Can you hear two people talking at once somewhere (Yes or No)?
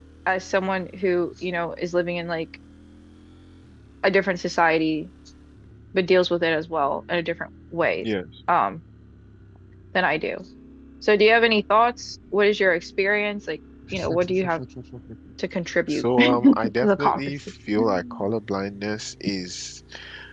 Yes